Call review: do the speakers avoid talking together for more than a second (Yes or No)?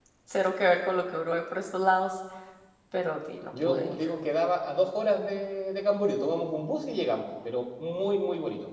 Yes